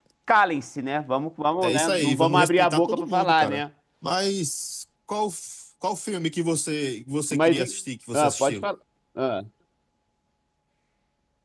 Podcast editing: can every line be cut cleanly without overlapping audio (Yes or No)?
No